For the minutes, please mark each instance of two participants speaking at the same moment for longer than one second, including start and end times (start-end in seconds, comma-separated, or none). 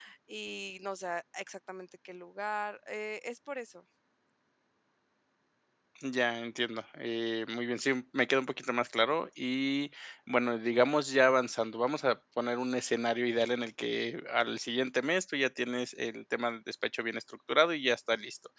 none